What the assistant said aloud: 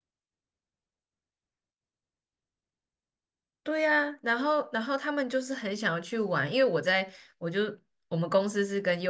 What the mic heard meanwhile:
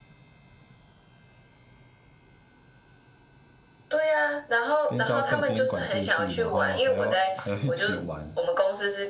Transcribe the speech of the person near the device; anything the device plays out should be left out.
边教课边管秩序，然后还要还要一起玩，

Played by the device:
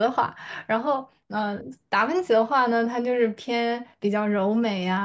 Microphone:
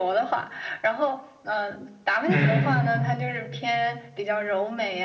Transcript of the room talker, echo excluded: 嗯，

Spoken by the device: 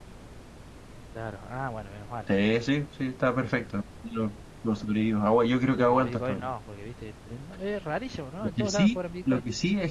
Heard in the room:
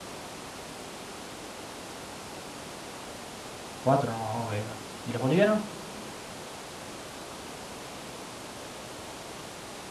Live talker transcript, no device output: Cuatro nomás, ok, bueno. ¿Y los bolivianos?

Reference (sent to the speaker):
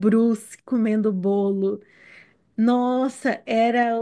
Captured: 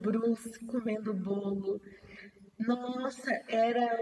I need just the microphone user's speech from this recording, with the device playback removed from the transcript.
none

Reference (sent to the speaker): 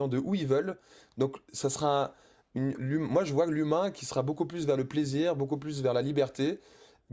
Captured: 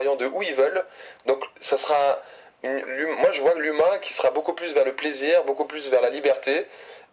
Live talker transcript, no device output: none

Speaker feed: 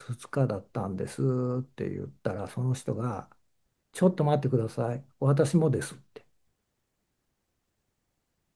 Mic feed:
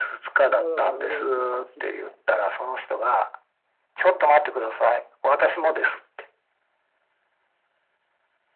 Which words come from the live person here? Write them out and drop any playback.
僕はだから驚きっぱなしでね、

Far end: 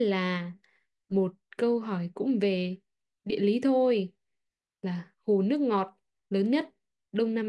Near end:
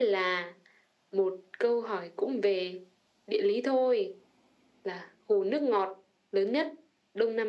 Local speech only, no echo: none

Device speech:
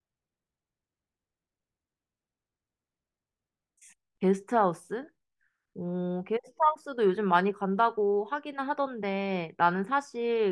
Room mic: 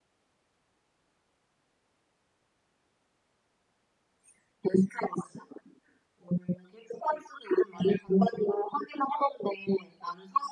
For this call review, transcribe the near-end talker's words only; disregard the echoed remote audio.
none

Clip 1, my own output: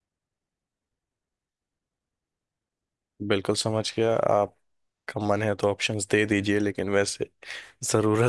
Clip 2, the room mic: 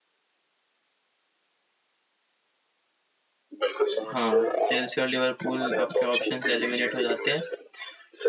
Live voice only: हाँ चेल्सी और लिवरपूल आपके ऑप्शंस एलिमिनेट हो जाते हैं

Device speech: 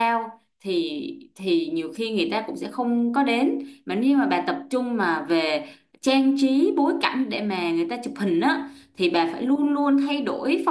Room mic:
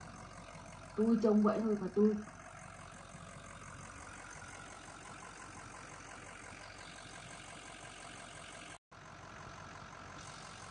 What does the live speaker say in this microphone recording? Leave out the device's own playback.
tôi trông vậy thôi mà tôi

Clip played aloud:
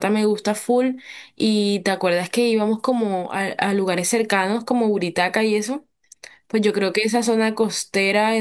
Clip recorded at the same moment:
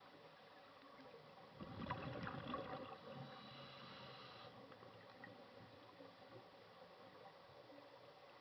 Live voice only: none

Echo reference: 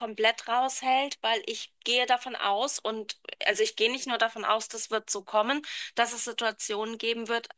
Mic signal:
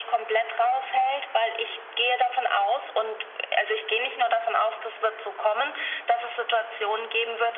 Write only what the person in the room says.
none

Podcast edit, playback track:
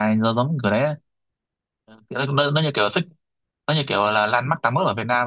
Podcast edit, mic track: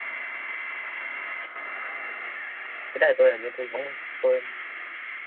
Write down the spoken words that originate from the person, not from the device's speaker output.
cái đó thì tôi hình như tôi không tôi

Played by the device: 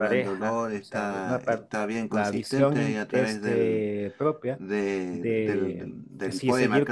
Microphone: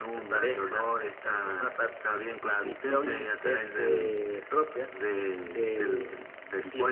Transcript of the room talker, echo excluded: none

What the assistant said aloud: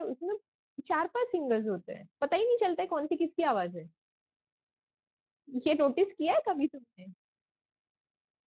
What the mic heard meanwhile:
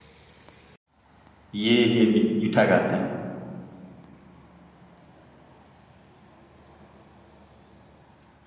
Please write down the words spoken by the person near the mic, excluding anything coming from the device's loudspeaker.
ये ये मी- मीठा गाते हैं

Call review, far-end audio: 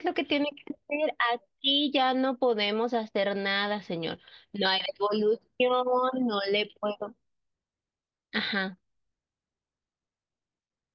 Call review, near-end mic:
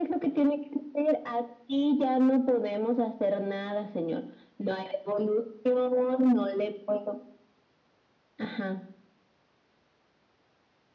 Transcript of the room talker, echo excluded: none

